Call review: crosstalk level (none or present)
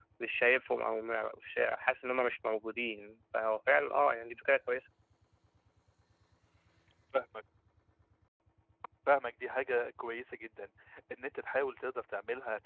none